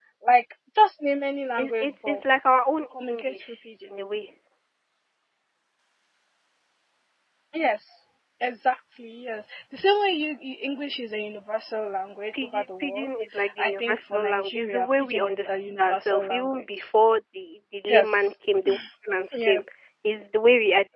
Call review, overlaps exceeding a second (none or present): present